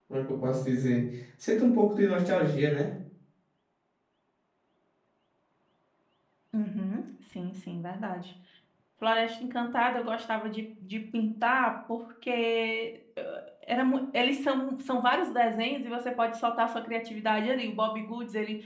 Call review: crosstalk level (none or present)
none